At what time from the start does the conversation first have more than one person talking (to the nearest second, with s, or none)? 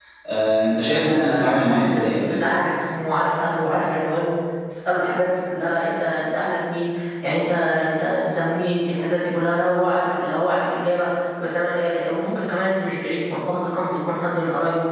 1 s